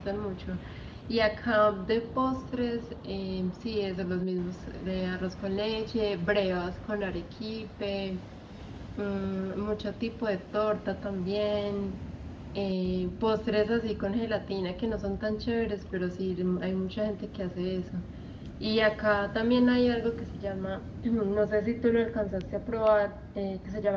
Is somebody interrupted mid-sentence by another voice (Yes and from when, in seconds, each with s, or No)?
No